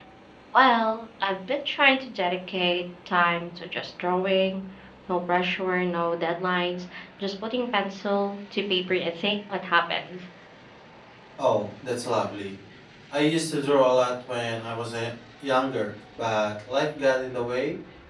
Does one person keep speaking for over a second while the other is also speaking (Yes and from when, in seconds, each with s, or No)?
No